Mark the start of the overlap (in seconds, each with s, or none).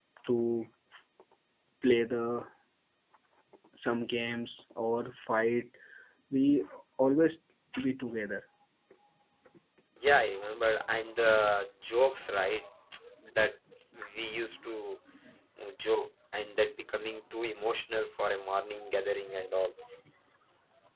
none